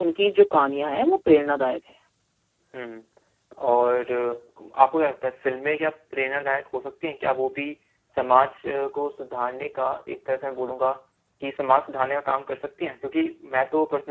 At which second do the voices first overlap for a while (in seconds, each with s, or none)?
none